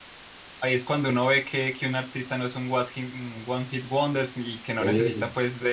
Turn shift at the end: No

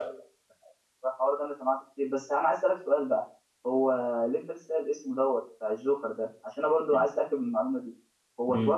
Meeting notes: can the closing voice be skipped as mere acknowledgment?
Yes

